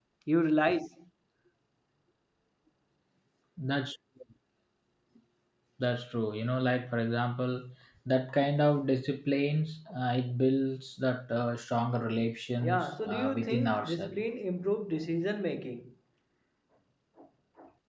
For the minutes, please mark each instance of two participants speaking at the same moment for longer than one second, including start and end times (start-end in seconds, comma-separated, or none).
12.6-14.2